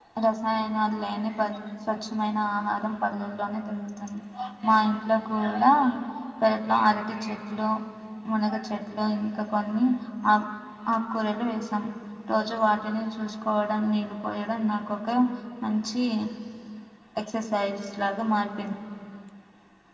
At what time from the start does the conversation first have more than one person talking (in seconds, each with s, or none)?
none